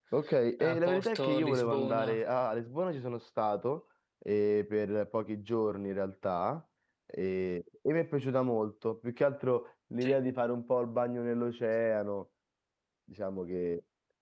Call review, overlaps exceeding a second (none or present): present